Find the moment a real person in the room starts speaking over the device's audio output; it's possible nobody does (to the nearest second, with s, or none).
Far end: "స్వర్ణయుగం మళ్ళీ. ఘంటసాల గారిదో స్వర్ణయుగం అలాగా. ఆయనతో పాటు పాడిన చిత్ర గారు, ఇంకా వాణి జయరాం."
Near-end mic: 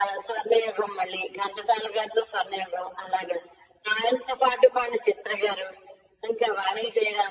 none